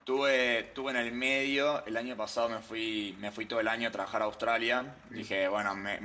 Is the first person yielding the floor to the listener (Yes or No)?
No